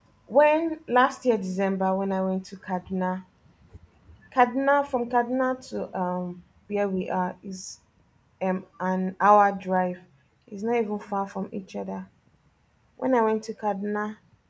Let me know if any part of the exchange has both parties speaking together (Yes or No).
No